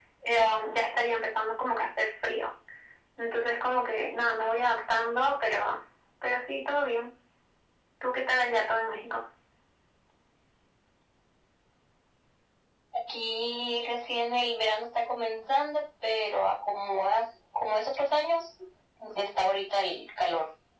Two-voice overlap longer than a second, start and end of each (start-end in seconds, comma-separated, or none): none